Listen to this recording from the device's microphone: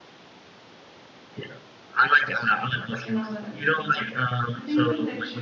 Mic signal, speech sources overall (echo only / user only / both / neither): both